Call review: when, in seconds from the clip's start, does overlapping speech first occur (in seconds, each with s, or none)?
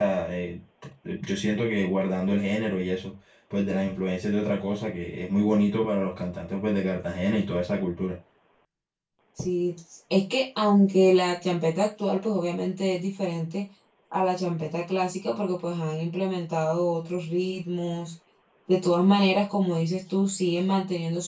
none